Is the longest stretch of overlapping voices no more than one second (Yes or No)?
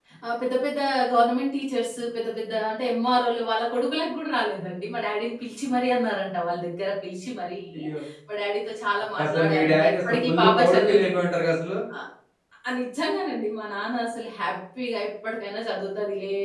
No